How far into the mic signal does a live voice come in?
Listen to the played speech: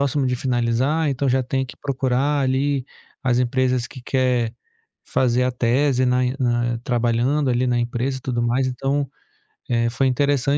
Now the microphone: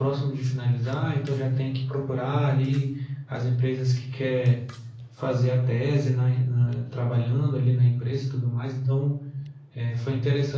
none

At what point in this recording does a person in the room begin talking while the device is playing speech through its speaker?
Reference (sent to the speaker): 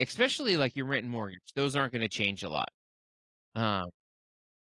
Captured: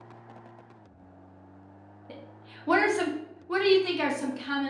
2.1 s

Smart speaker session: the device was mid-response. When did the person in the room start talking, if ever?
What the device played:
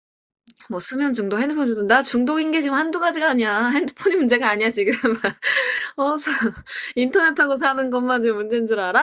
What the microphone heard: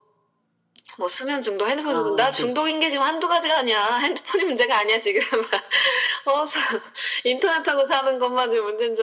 1.8 s

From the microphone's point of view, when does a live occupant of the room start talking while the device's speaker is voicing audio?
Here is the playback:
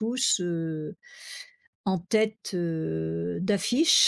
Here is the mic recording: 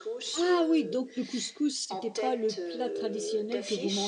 0.3 s

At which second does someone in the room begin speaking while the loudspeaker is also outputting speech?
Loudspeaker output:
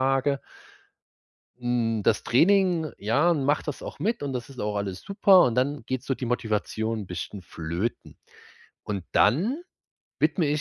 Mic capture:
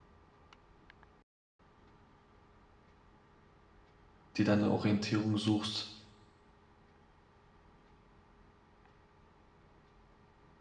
4.4 s

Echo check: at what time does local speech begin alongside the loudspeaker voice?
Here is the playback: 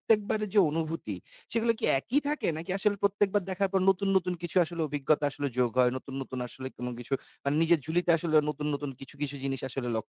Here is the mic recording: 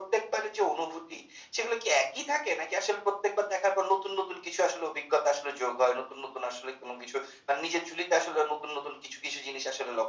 none

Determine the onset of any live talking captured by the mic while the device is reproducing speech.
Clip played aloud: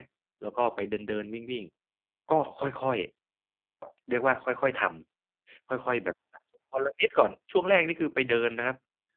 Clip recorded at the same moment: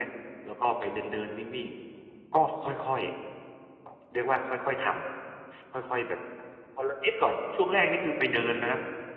none

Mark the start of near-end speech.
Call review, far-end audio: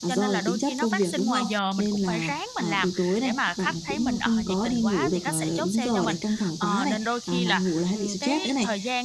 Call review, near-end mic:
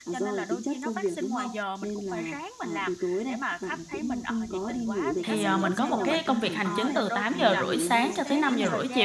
5.2 s

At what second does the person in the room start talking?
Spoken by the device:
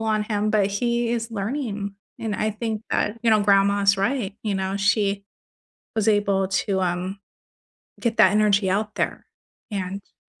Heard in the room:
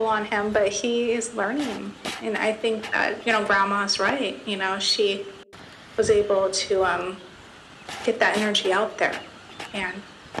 none

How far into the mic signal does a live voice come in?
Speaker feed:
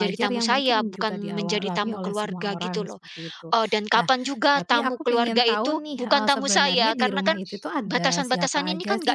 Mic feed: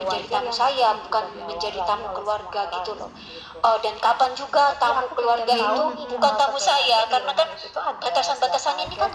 5.5 s

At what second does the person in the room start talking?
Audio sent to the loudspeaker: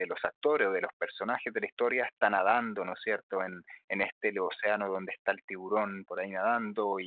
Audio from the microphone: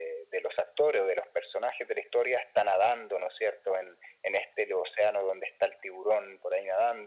none

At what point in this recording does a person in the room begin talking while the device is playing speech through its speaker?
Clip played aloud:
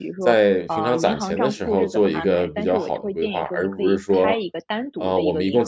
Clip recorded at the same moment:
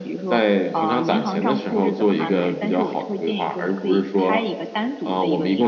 none

